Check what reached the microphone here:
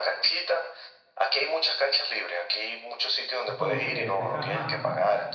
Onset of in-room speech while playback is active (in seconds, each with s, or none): 3.5 s